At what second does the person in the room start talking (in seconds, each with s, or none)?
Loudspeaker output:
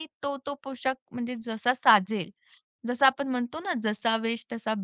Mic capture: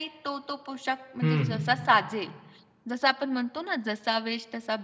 1.2 s